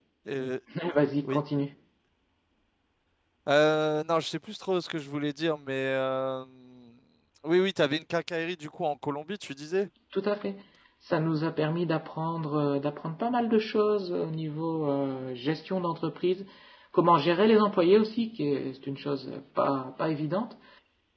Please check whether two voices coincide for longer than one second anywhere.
No

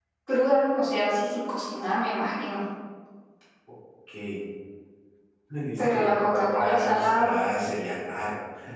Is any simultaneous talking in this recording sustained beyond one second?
Yes, from 5.8 s

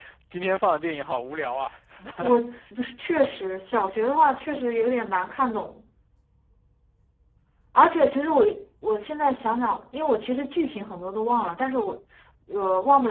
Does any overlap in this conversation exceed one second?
No

